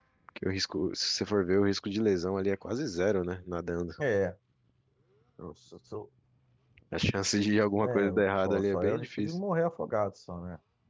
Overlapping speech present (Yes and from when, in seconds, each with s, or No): Yes, from 7.8 s